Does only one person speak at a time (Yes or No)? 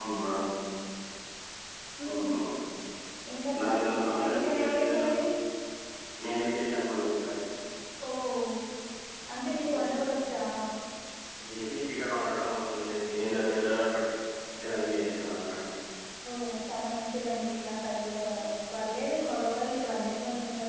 No